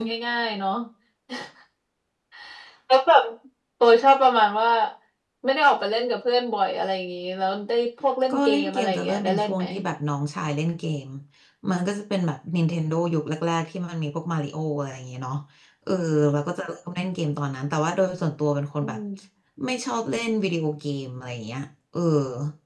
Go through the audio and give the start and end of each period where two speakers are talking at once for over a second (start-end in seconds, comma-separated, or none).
8.3-9.7